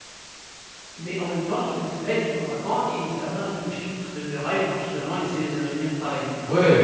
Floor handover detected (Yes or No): Yes